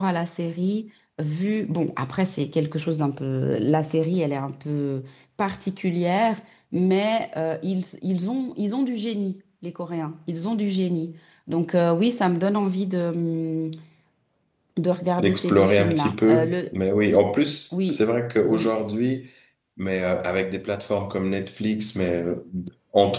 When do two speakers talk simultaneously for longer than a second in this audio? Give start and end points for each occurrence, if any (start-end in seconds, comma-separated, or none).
15.2-16.6